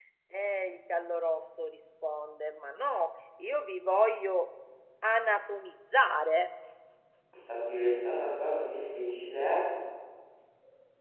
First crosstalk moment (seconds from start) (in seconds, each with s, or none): none